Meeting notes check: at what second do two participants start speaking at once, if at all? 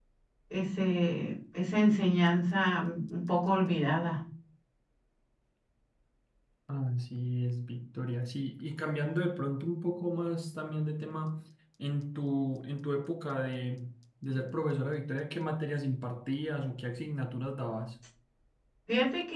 none

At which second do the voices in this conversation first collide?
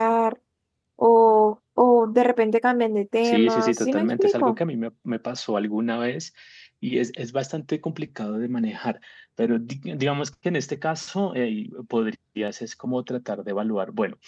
3 s

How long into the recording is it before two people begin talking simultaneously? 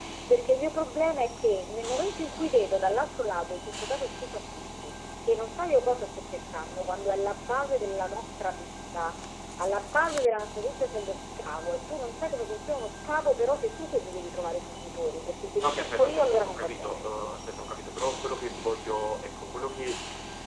16 s

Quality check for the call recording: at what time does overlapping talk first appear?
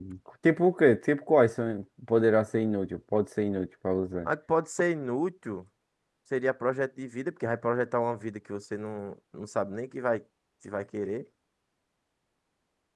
none

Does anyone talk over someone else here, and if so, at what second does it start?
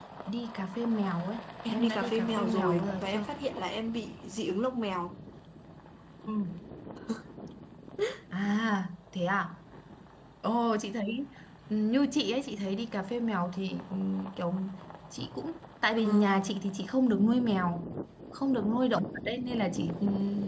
2 s

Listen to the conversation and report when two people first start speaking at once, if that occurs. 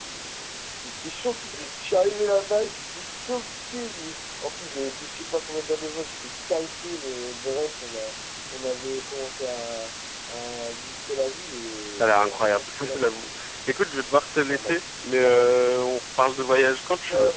12 s

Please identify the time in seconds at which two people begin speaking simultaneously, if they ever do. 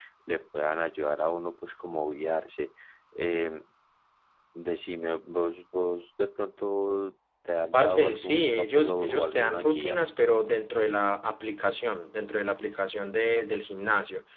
8 s

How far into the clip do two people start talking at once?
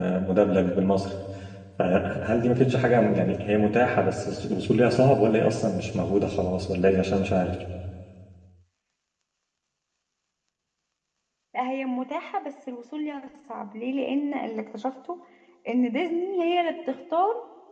none

